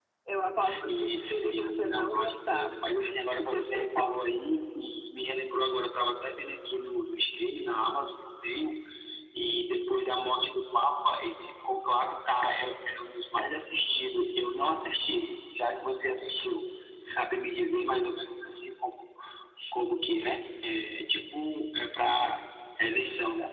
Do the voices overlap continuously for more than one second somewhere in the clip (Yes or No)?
Yes